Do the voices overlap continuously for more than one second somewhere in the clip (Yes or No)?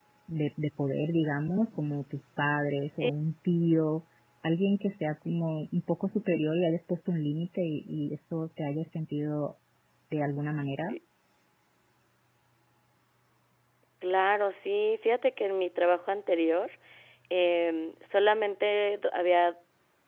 No